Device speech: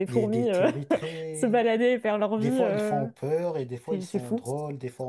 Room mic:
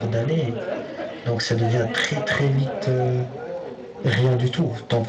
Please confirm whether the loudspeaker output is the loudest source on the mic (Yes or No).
No